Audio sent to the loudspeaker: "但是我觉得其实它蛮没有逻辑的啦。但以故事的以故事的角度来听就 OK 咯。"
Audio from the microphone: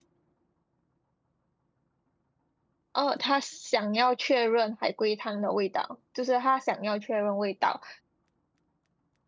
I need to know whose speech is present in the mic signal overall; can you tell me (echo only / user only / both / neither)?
user only